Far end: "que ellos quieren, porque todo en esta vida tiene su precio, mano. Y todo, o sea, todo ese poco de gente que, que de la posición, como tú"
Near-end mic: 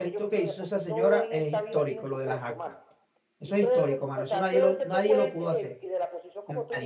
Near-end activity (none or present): present